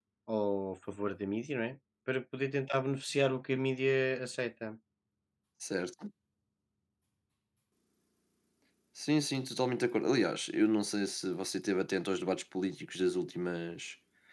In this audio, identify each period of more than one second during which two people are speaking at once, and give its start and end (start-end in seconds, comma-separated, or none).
none